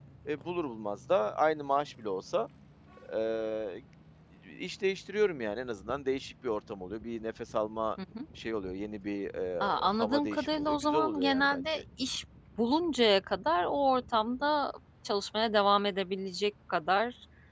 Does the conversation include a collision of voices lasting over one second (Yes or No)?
Yes